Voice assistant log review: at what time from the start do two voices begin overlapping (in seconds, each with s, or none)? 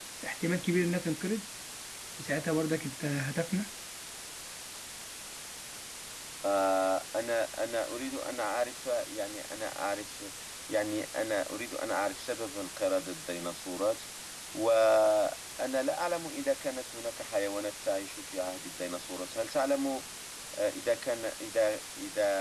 none